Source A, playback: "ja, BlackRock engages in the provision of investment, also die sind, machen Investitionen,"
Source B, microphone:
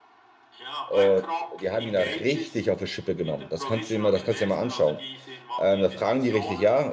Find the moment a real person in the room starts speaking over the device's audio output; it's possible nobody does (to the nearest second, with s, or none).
1 s